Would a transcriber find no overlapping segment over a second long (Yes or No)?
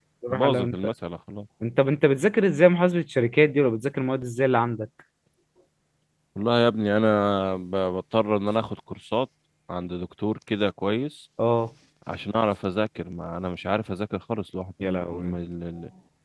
Yes